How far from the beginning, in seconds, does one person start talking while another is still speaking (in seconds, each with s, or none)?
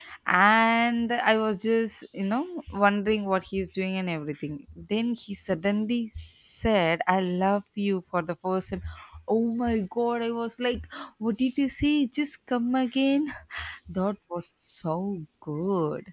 none